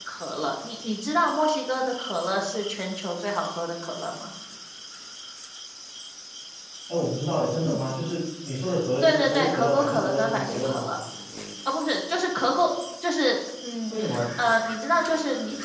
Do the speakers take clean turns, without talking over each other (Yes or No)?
No